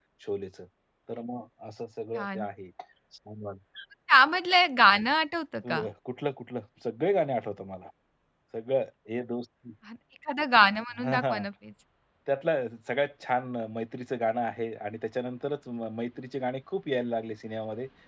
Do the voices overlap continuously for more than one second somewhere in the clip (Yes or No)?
No